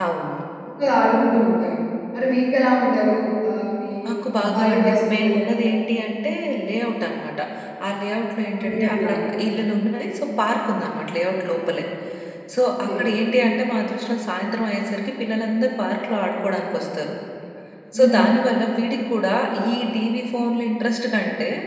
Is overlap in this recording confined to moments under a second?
No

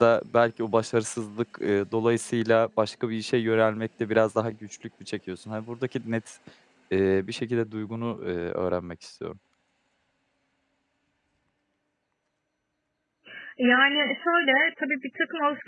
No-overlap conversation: Yes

